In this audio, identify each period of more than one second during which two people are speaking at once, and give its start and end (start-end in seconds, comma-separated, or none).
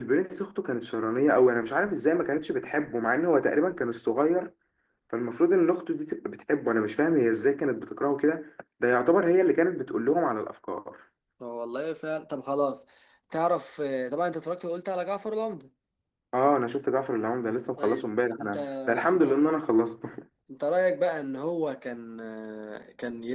17.8-19.4